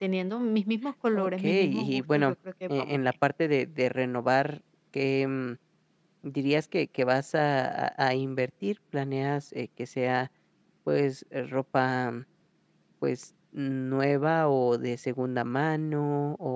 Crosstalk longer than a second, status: present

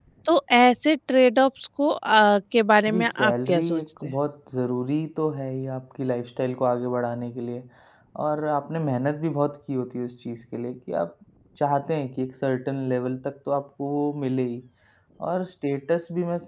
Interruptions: present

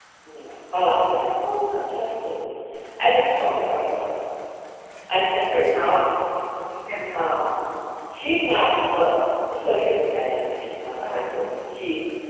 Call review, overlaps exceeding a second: none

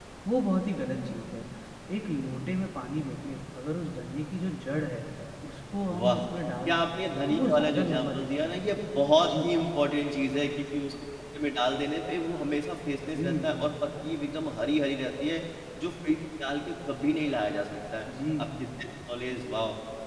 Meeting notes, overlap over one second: present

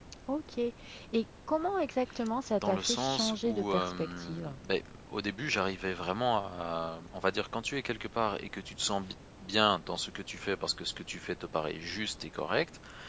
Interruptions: present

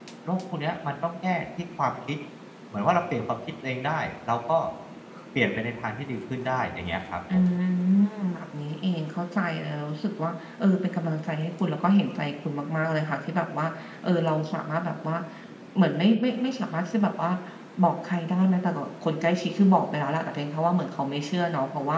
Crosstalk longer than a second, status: none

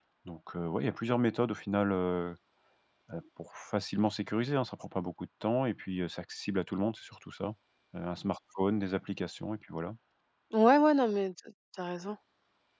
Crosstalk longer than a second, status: none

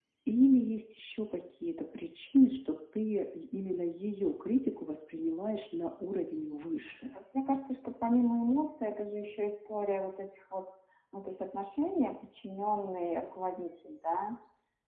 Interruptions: none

